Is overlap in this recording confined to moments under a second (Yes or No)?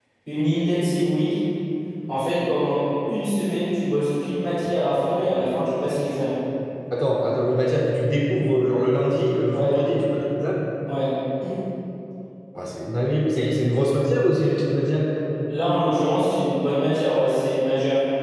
Yes